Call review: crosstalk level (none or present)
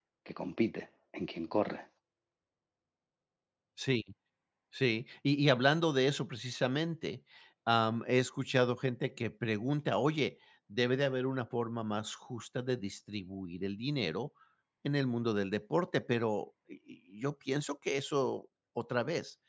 none